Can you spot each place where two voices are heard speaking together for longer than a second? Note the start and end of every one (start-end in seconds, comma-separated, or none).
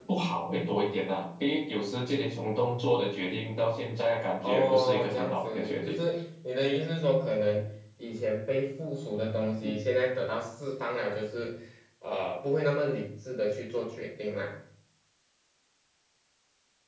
4.4-6.0